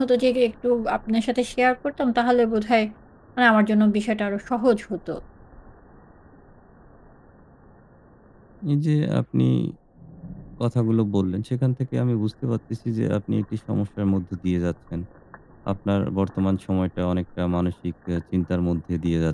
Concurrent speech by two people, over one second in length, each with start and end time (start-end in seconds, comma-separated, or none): none